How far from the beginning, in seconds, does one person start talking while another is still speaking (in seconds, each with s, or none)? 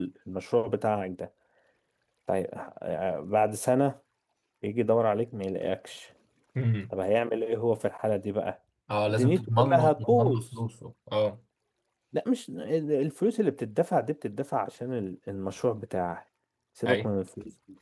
9.1 s